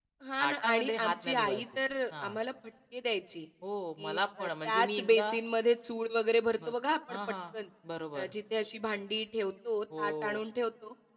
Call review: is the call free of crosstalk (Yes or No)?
No